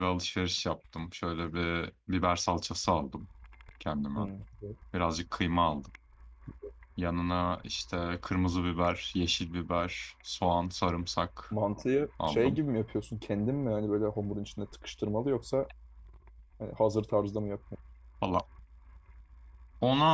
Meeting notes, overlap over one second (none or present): none